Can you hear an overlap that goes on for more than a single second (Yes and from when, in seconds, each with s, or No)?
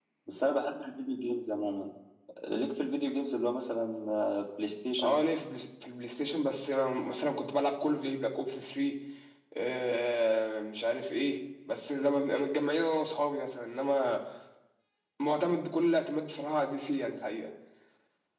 No